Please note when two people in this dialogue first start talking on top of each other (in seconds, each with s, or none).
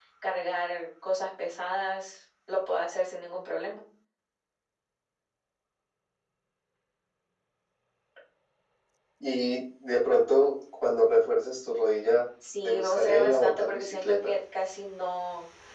12.6 s